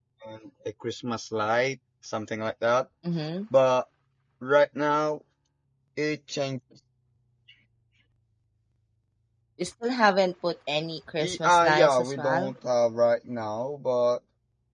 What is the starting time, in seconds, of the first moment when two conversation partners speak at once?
11.2 s

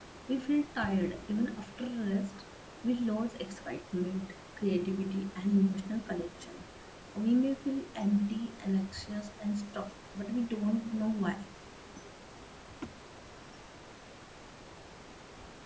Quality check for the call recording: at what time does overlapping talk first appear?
none

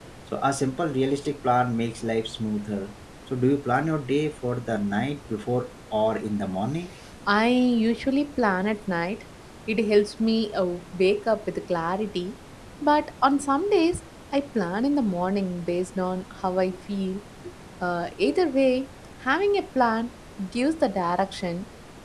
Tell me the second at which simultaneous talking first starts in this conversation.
none

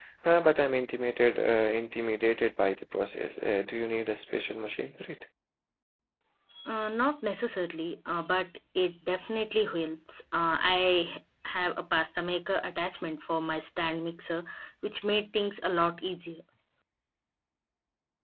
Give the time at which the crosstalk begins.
none

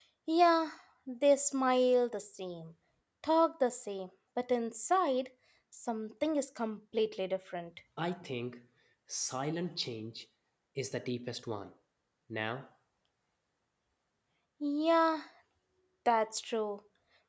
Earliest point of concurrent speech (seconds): none

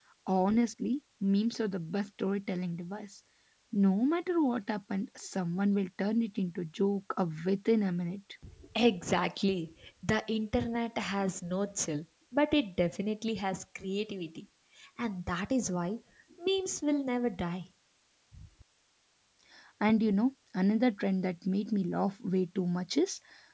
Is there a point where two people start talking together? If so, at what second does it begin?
none

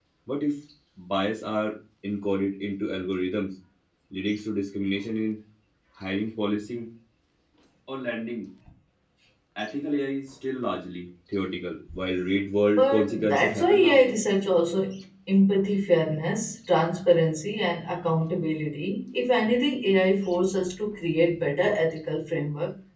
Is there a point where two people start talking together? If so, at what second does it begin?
12.7 s

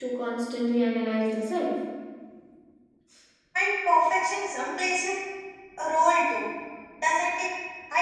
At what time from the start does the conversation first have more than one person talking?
none

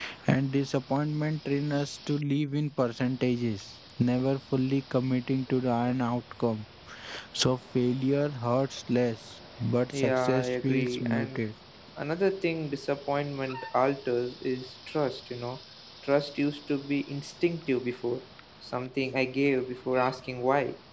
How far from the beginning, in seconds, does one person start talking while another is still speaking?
9.9 s

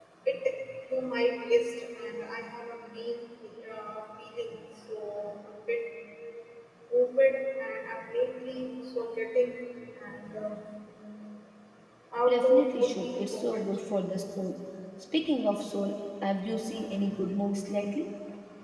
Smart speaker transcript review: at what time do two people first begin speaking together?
12.3 s

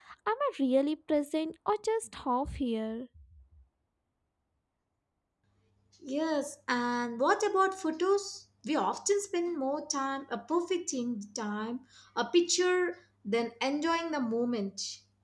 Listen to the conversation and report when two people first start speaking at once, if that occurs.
none

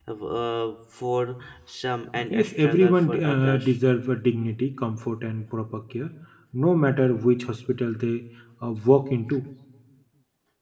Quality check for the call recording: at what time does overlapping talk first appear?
2.1 s

